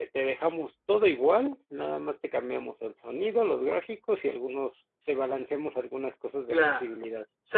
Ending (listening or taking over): taking over